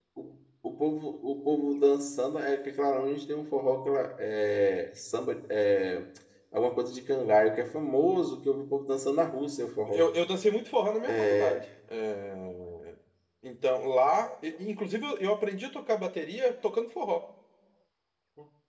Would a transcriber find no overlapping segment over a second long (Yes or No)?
Yes